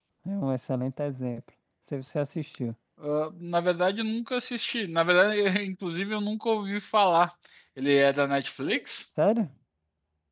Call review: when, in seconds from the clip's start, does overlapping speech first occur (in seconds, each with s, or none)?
none